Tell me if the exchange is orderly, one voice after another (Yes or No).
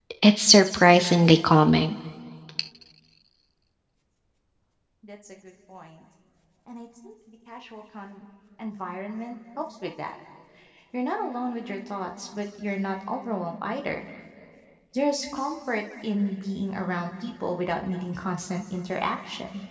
Yes